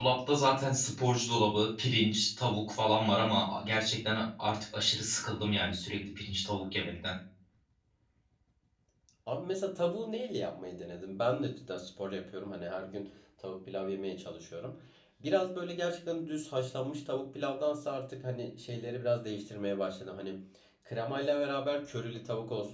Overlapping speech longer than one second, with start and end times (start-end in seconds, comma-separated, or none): none